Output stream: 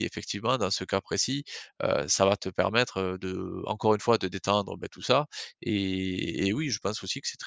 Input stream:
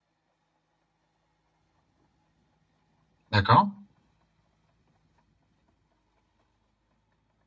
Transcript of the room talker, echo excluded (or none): D'accord.